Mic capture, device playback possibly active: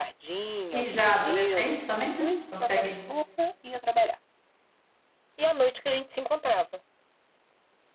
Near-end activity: present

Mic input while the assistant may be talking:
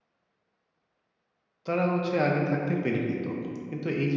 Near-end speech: present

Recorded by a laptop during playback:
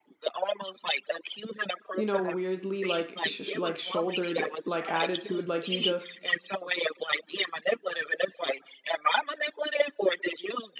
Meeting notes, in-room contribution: present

